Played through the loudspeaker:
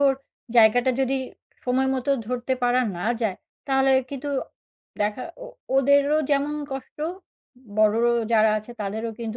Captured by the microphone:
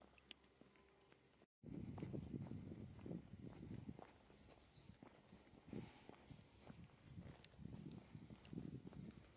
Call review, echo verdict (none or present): none